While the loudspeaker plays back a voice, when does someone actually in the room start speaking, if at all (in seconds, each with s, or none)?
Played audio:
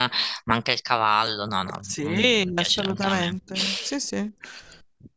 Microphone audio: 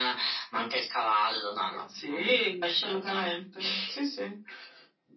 none